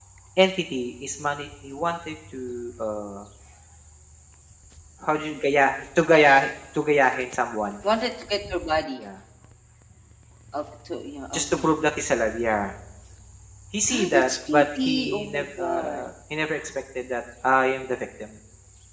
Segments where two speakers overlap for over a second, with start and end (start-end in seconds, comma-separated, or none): 13.9-16.0